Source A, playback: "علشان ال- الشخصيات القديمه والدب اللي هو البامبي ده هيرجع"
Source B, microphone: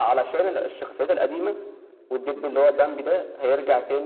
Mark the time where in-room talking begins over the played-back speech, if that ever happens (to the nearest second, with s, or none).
none